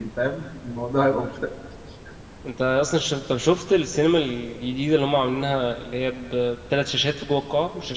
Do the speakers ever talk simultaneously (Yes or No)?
No